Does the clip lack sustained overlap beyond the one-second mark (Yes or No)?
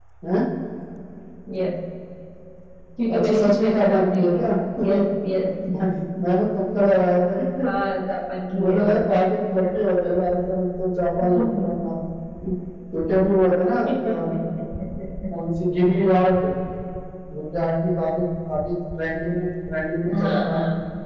No